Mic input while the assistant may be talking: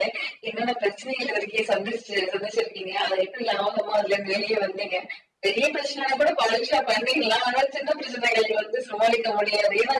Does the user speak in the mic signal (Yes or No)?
No